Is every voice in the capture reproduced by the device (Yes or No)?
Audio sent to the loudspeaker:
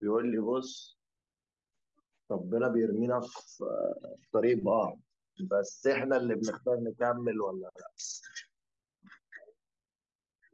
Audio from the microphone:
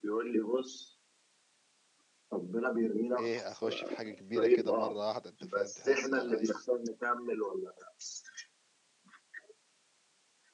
No